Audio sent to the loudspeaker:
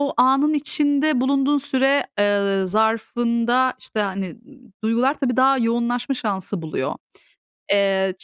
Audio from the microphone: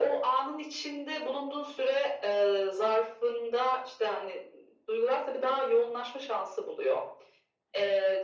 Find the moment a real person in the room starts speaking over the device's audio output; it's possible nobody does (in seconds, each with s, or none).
none